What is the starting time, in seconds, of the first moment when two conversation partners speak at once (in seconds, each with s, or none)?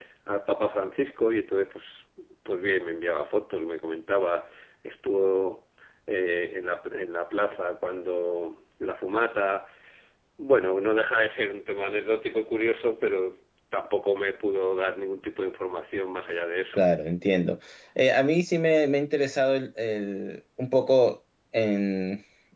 none